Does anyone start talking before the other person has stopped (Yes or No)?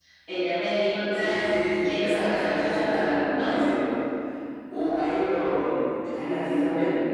Yes